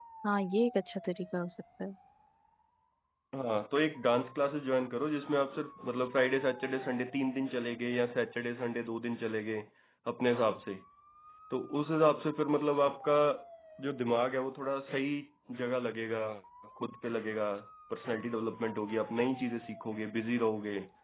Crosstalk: none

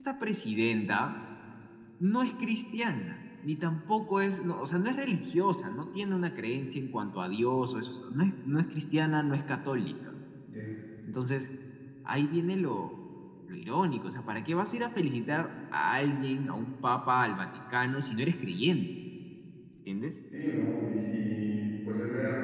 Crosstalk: none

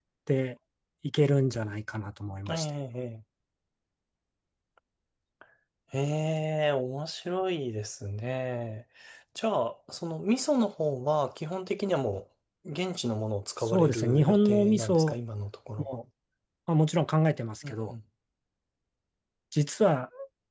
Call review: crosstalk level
present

